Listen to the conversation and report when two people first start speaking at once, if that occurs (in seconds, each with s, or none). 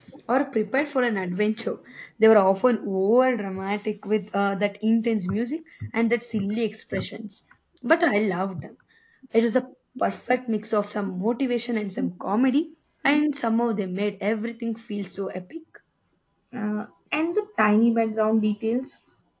none